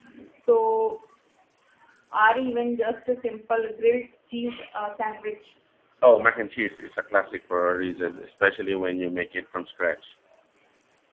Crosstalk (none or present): none